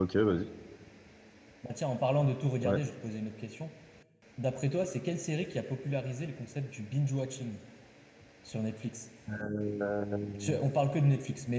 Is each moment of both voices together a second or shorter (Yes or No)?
Yes